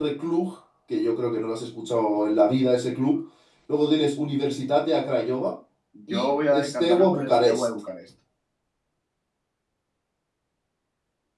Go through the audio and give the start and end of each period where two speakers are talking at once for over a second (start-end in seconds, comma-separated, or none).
6.1-7.7